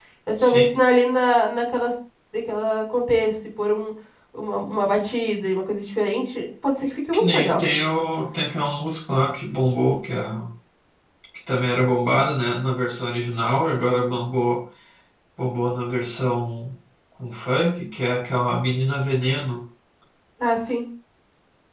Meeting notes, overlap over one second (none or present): none